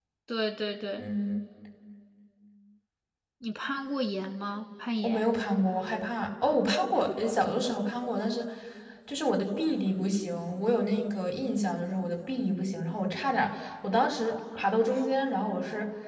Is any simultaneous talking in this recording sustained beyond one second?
No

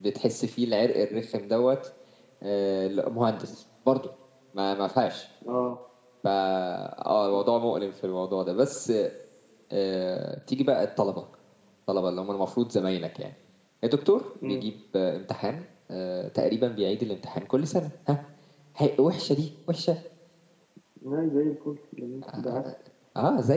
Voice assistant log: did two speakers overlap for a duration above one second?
No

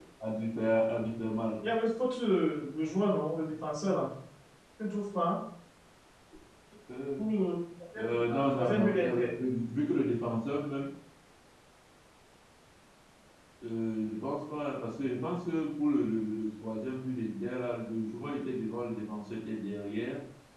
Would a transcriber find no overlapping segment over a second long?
No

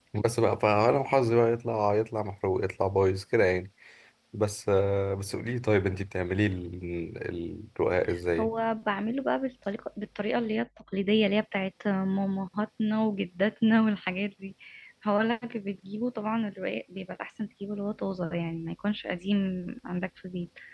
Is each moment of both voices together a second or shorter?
Yes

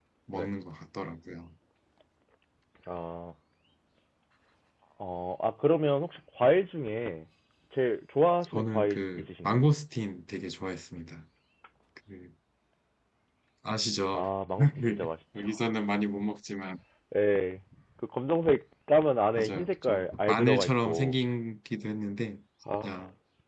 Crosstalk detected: Yes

